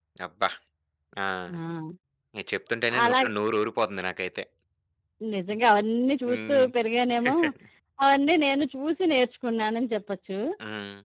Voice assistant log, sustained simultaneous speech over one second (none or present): none